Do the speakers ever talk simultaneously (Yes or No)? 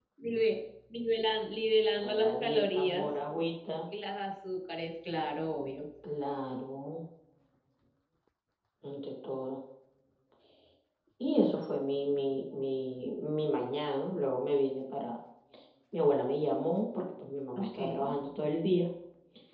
Yes